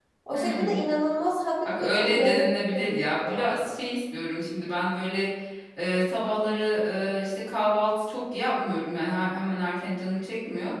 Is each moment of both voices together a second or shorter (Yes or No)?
No